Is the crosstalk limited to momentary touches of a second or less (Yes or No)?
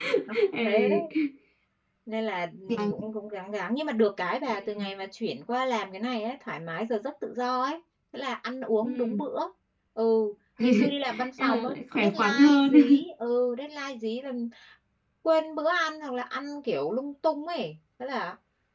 No